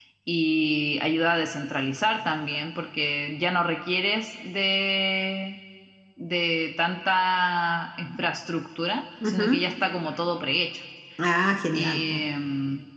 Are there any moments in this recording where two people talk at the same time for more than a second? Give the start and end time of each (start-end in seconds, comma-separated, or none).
none